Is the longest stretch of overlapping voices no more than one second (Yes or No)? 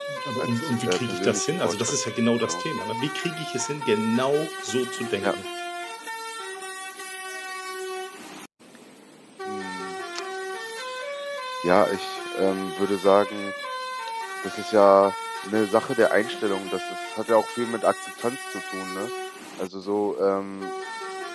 No